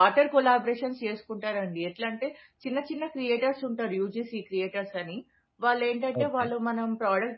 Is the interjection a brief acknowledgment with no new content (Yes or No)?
Yes